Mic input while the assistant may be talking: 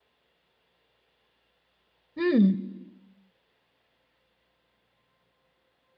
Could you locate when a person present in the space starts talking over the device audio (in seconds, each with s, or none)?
2.2 s